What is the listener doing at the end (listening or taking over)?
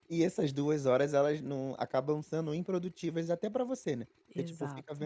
listening